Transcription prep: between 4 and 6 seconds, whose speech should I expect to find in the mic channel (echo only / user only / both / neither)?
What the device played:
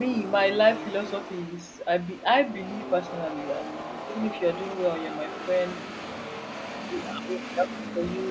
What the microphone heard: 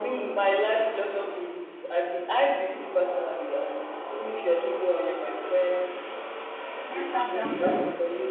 echo only